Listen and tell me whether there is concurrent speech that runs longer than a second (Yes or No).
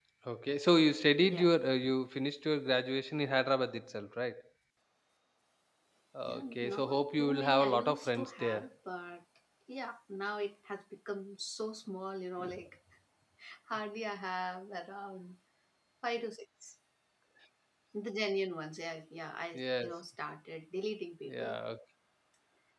Yes